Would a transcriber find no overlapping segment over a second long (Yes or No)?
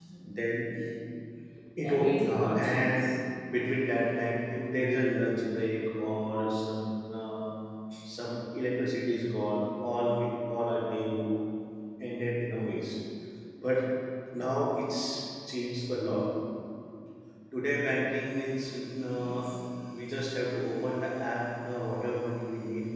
No